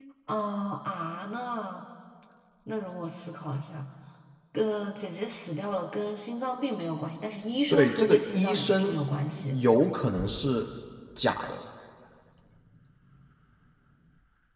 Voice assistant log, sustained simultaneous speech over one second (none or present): present